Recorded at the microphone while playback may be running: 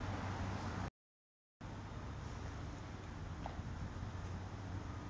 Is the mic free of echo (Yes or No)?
Yes